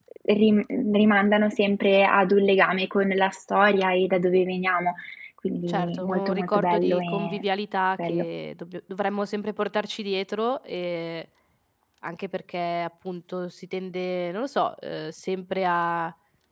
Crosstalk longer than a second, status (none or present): present